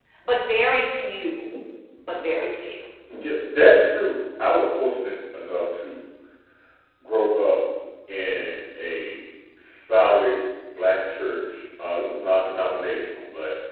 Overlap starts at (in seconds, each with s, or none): none